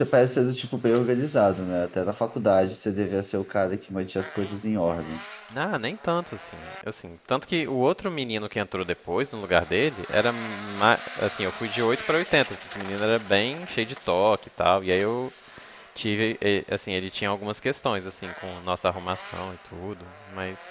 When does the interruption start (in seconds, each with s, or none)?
none